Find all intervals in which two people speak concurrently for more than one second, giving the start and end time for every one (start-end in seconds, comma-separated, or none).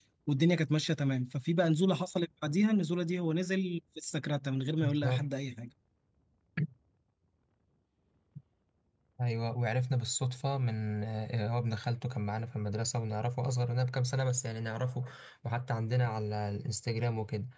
none